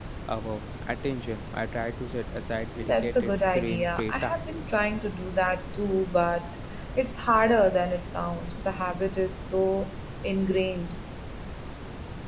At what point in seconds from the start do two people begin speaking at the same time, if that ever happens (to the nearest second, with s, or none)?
3 s